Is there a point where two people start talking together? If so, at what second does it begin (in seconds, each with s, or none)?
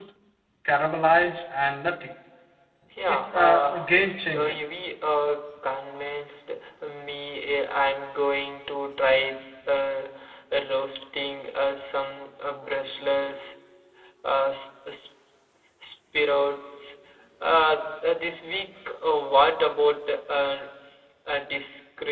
3.1 s